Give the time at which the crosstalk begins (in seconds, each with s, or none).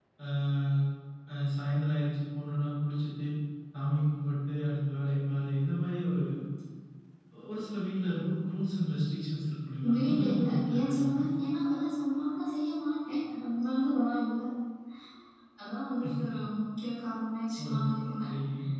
9.8 s